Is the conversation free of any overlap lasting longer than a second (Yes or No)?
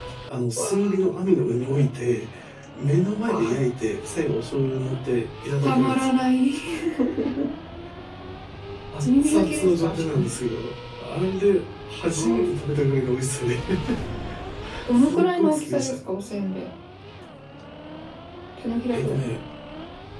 No